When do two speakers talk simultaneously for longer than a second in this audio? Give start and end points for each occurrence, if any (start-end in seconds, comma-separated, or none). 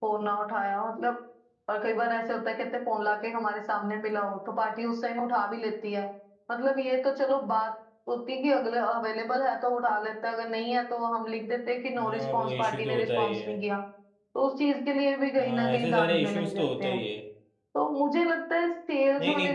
12.0-13.5, 15.4-17.0